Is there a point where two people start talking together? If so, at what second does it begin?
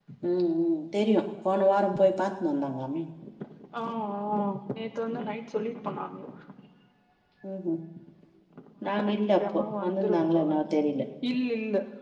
9.0 s

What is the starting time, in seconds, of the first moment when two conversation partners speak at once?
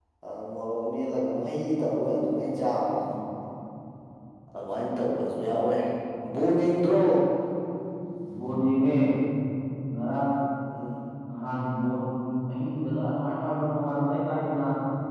none

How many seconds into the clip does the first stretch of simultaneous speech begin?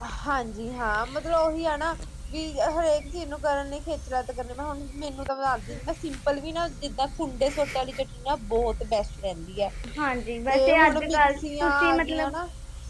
10.5 s

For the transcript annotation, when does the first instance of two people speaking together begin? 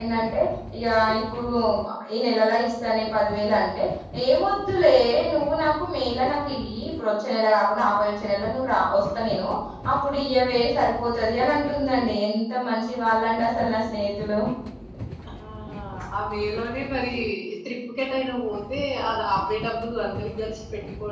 none

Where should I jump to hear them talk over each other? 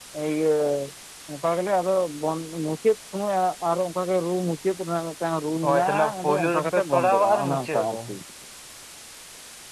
5.6 s

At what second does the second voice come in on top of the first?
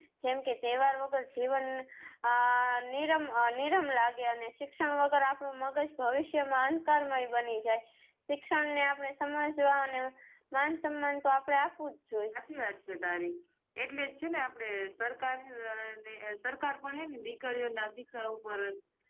none

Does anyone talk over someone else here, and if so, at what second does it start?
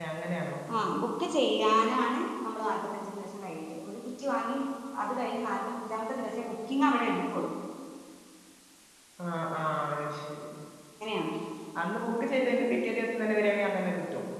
none

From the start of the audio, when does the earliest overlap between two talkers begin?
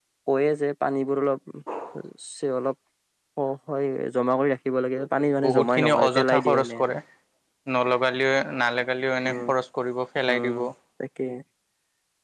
5.4 s

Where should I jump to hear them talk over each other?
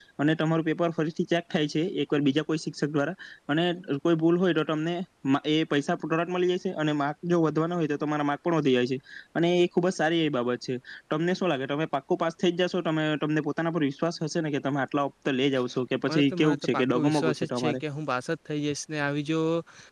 16.1 s

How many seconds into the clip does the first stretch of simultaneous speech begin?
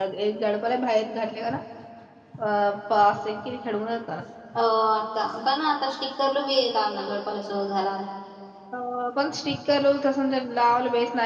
none

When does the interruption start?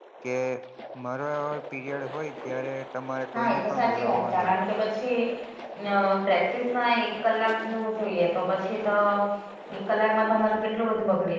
3.3 s

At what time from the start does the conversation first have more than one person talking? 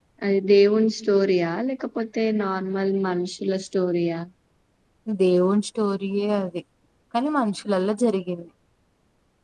none

